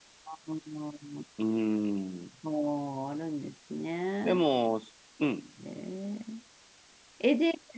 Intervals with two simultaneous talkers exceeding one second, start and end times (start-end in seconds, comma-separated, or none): none